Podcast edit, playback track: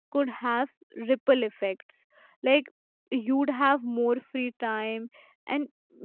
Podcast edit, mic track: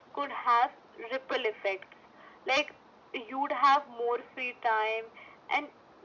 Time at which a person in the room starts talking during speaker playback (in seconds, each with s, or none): none